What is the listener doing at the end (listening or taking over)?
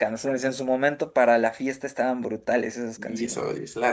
taking over